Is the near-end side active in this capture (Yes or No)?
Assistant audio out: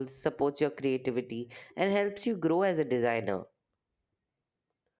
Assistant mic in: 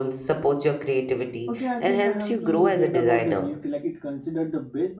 Yes